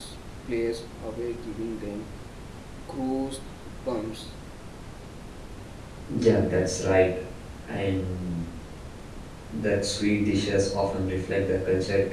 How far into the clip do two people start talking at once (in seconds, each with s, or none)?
none